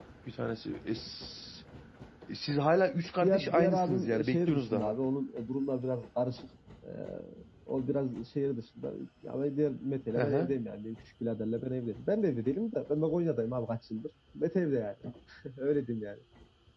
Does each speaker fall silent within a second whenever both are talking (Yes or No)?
No